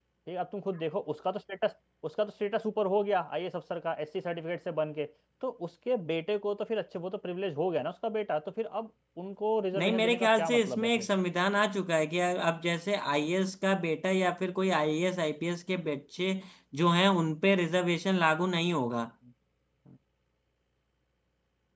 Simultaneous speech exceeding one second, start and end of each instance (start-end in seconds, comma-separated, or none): 9.8-11.1